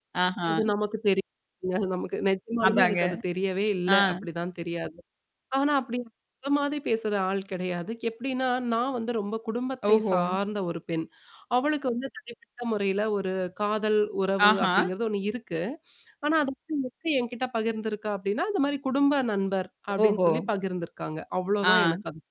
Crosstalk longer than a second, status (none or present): none